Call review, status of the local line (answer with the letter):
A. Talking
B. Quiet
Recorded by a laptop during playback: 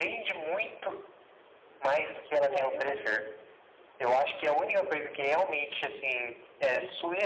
A